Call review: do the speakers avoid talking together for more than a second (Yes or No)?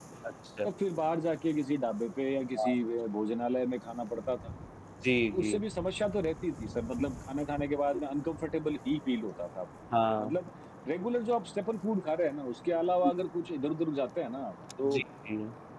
Yes